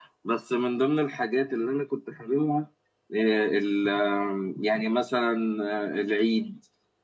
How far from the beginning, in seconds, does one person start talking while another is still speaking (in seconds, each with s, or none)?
none